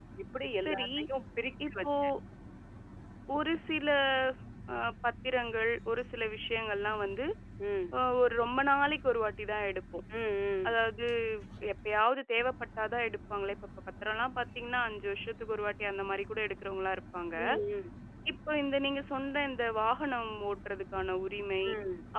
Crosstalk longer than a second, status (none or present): none